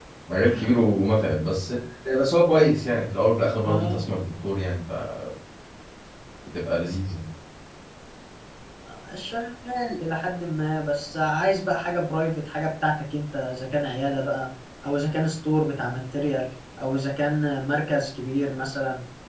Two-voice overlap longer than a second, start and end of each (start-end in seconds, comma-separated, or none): none